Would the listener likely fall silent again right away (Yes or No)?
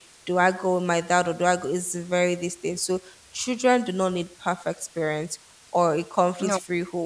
Yes